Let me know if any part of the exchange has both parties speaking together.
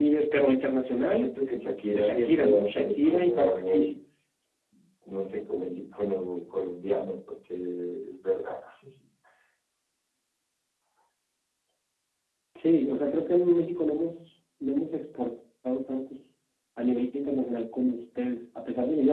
Yes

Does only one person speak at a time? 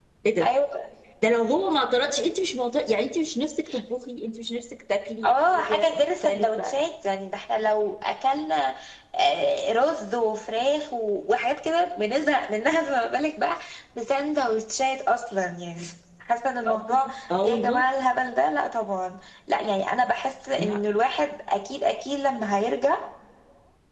No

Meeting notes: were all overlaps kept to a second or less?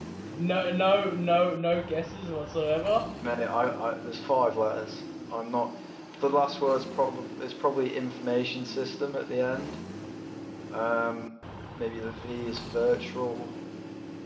Yes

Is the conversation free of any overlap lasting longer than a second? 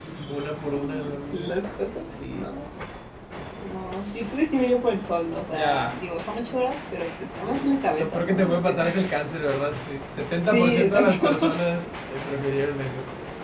No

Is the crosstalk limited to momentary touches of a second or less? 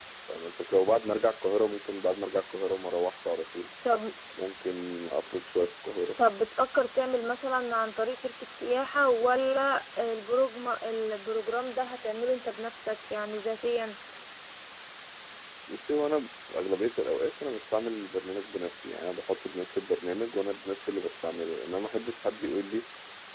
Yes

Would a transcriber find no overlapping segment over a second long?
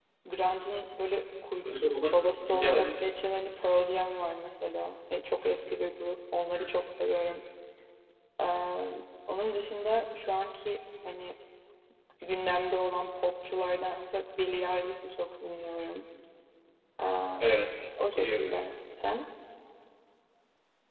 No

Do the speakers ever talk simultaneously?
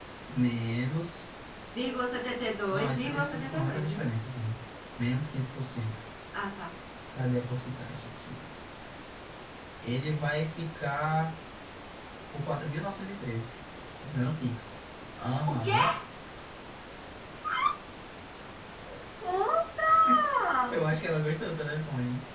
Yes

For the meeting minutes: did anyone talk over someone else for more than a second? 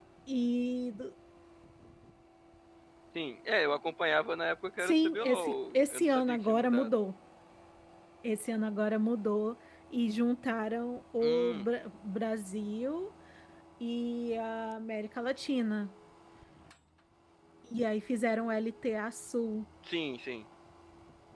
Yes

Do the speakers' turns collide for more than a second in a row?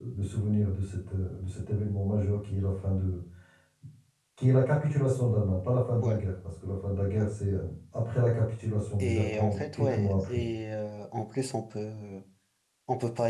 Yes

